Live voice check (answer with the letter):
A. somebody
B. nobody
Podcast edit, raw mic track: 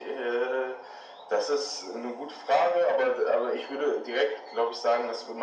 B